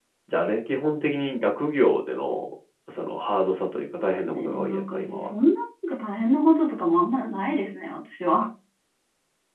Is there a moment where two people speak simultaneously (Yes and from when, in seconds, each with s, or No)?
Yes, from 4.0 s